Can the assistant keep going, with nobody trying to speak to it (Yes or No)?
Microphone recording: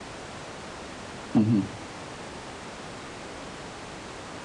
No